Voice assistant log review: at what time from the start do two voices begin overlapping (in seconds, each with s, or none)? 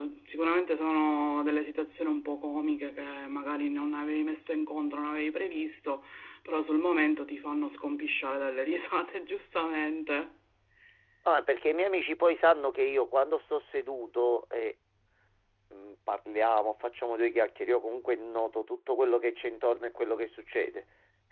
none